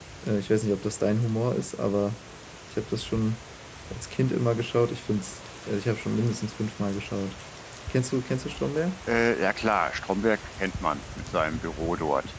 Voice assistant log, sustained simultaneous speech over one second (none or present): none